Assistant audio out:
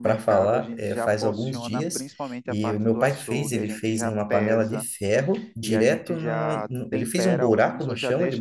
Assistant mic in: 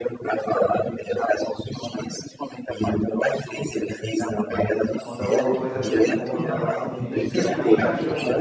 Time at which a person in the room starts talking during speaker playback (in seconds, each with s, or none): 5.0 s